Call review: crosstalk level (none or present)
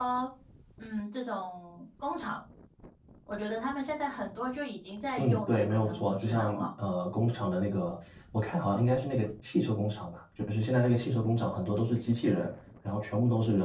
present